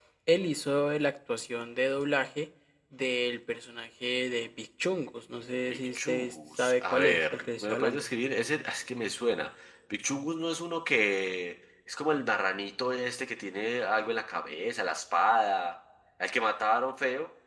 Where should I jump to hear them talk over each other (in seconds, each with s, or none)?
5.7 s